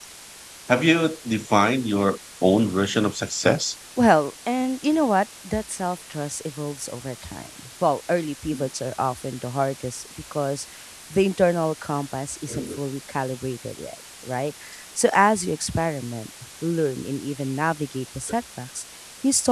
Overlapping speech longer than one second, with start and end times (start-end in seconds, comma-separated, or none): none